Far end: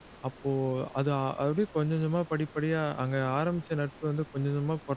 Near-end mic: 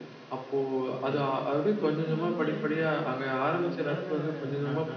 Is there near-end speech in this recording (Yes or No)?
Yes